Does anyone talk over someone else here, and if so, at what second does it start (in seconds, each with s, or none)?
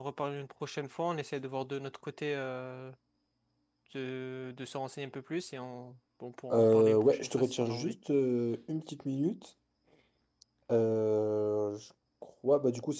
6.5 s